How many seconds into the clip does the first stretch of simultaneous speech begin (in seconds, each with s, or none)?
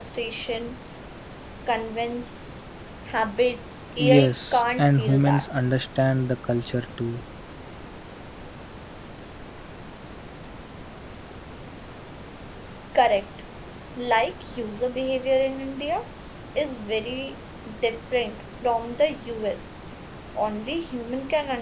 4.0 s